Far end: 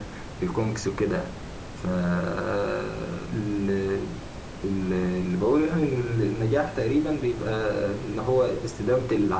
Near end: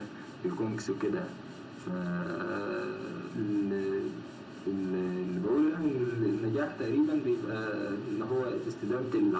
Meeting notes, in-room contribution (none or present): none